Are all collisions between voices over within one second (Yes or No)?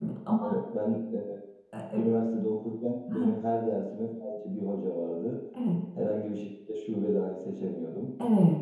Yes